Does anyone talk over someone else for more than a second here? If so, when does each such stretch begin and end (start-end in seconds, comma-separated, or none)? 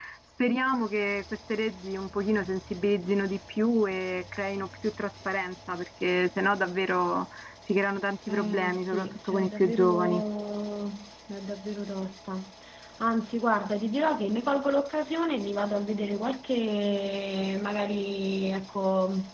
8.3-10.2